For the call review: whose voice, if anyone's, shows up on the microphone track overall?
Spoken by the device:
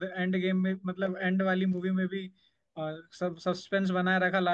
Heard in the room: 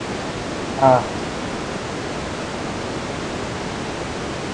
user only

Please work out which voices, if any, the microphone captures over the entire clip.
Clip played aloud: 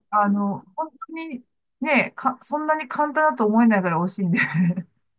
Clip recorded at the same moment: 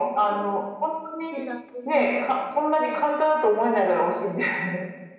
both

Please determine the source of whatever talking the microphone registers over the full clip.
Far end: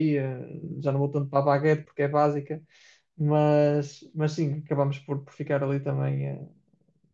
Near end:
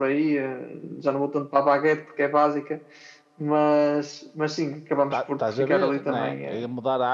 both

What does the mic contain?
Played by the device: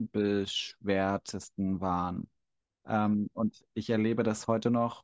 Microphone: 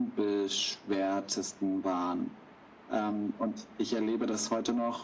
echo only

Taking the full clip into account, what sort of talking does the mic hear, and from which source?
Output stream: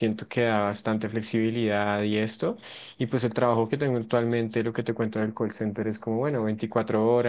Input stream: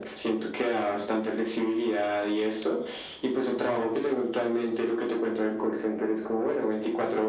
echo only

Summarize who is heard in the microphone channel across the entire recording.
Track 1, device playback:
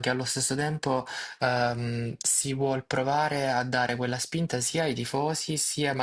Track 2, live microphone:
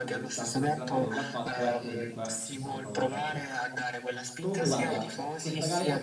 both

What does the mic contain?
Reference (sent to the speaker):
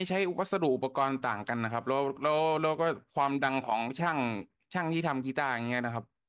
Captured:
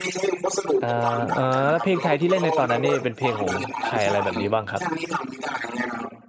both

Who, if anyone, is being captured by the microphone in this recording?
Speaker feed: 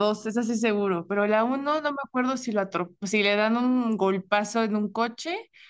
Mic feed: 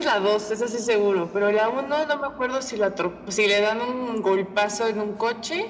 echo only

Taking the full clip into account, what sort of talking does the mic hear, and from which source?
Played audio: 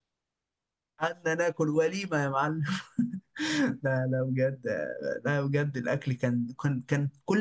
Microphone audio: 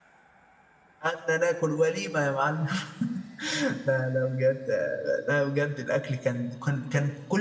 echo only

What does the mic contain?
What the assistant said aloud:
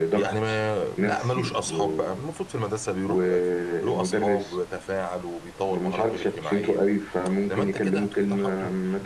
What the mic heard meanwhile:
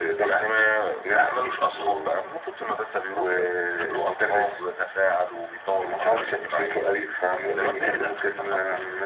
both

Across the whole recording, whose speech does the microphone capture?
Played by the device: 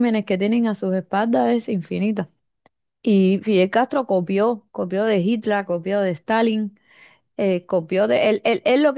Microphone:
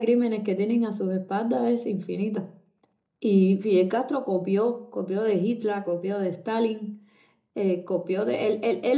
echo only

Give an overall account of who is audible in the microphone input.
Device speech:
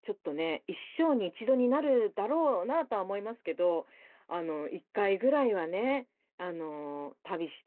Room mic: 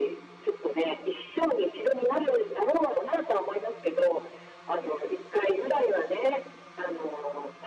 echo only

